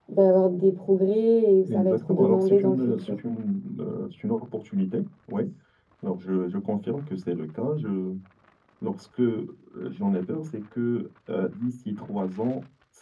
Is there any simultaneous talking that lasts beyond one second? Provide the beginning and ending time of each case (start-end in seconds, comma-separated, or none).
1.7-3.2